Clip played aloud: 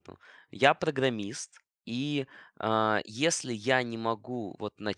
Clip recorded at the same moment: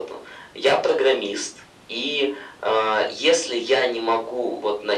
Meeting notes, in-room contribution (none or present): none